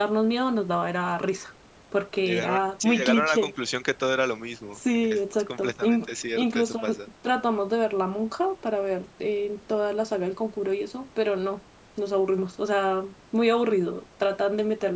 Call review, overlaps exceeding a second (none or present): present